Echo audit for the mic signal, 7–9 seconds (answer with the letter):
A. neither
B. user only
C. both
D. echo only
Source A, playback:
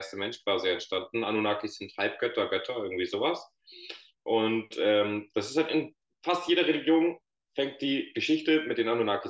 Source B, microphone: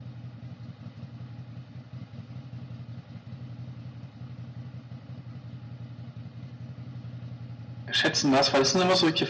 B